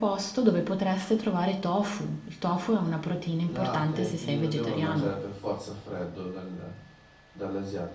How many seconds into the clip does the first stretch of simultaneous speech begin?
3.4 s

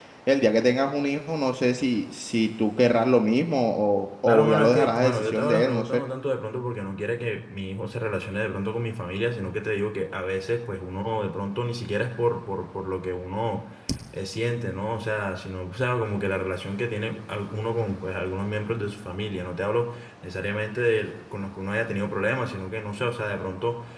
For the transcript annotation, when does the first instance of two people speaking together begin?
4.3 s

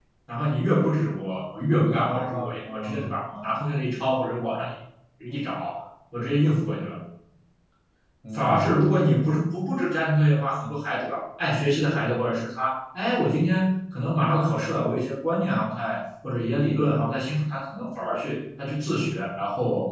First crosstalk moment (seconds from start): 1.7 s

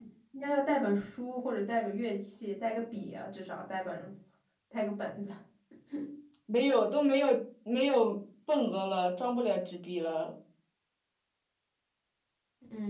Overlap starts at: none

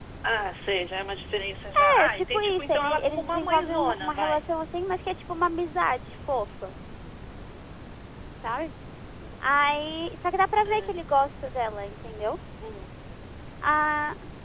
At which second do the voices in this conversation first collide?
2.0 s

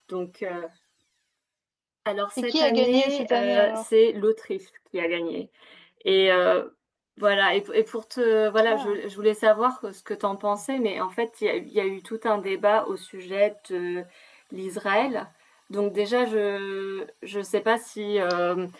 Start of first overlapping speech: 2.4 s

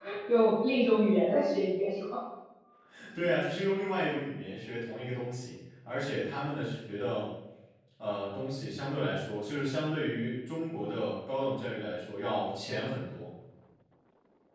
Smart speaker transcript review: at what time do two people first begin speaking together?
none

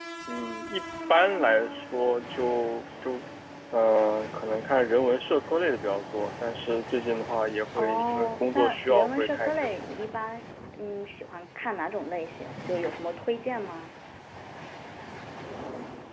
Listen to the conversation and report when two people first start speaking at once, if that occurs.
7.8 s

